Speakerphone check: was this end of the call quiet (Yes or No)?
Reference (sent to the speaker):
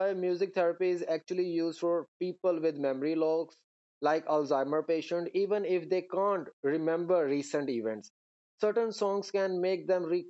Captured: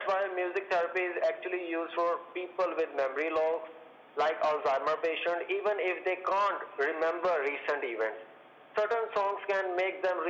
Yes